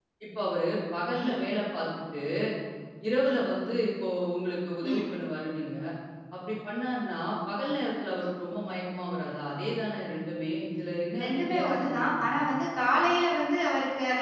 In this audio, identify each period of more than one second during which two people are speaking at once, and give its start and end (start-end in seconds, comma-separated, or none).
11.2-12.4